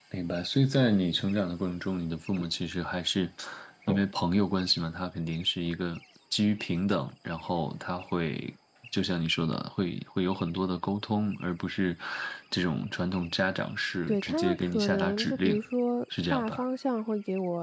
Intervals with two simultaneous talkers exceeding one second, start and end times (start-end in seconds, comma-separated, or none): 14.1-15.6